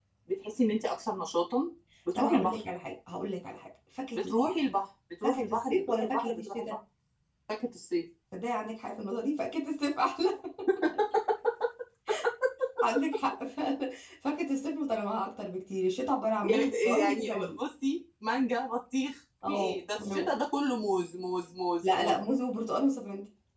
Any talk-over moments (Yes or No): Yes